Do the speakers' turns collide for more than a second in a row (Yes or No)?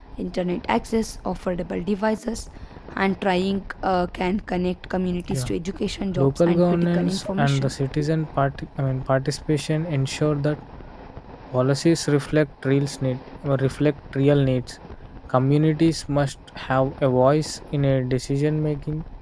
Yes